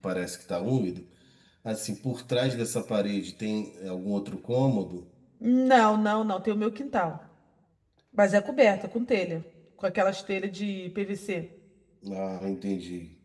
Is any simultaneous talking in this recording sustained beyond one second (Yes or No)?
No